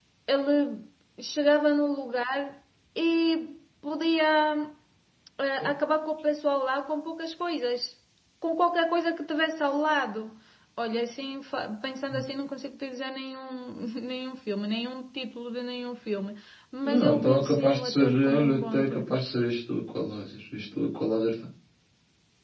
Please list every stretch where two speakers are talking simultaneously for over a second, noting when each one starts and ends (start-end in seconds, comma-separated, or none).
16.8-19.1